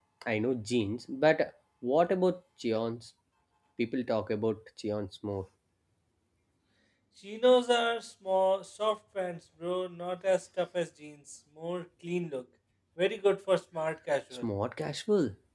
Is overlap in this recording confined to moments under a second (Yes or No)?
Yes